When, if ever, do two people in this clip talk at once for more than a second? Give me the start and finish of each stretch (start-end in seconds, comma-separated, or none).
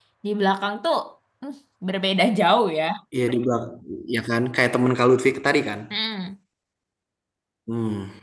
none